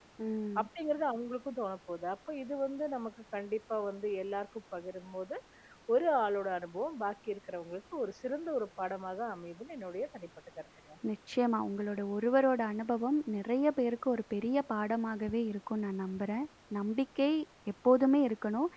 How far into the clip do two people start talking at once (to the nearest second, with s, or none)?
none